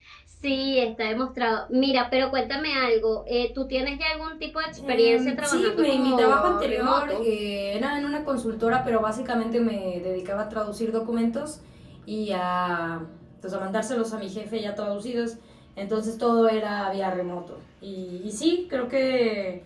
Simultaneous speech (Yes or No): Yes